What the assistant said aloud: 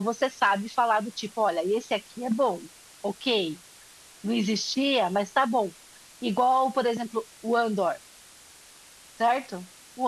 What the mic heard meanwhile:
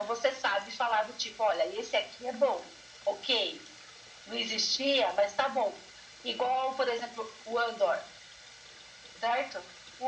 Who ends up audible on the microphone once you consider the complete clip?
echo only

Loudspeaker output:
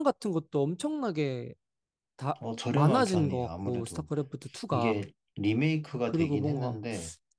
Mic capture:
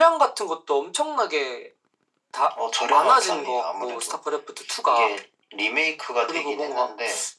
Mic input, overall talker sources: echo only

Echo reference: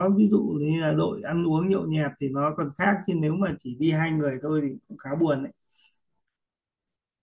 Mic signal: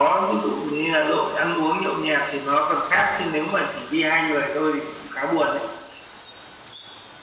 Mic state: echo only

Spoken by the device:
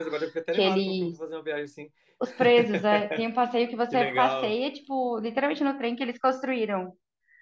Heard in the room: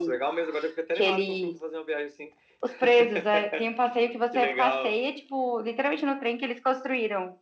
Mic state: echo only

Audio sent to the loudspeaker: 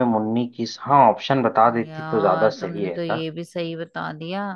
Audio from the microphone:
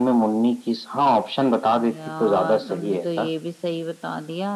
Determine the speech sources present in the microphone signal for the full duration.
echo only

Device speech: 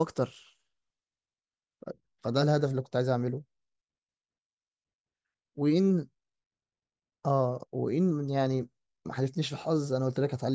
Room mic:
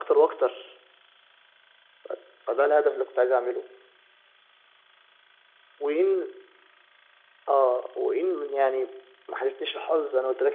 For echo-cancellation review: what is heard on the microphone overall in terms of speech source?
echo only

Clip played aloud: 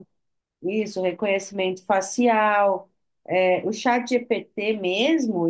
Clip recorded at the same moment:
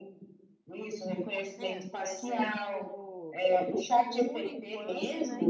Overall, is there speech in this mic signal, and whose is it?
both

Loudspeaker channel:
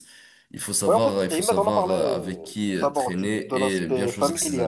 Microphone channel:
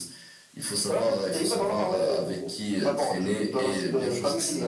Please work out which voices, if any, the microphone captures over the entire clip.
echo only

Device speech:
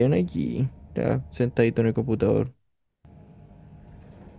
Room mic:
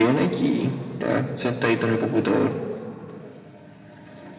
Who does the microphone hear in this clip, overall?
echo only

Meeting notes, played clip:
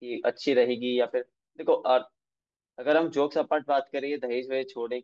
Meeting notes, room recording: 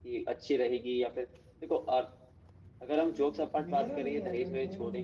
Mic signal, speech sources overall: both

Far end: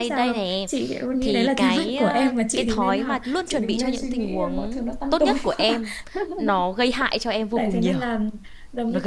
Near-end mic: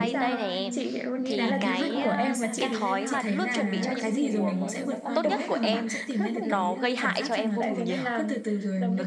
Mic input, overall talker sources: both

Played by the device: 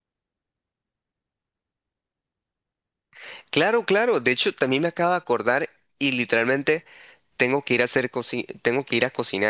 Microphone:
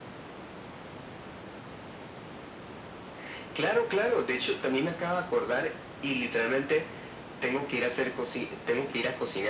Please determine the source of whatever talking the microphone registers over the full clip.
echo only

